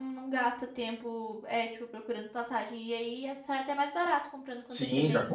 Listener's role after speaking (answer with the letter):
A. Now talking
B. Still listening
A